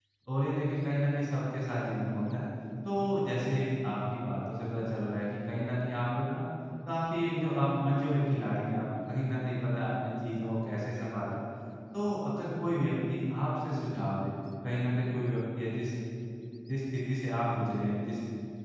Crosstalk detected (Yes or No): No